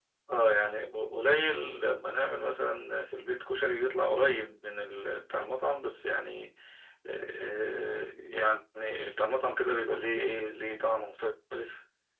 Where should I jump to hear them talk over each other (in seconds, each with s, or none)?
none